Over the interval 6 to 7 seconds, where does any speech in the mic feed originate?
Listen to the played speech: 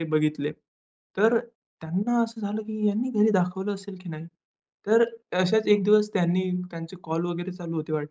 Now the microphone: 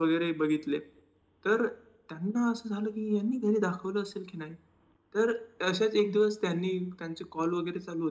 echo only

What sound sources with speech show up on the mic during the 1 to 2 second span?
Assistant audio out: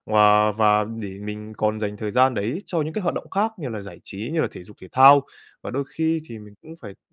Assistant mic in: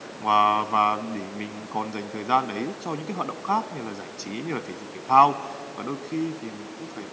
echo only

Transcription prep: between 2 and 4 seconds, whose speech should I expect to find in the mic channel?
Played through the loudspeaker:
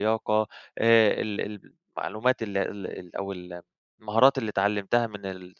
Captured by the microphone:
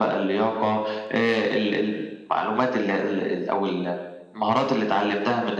echo only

